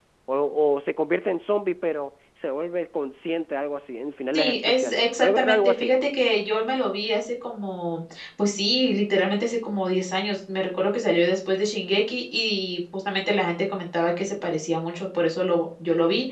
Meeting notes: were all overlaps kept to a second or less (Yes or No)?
No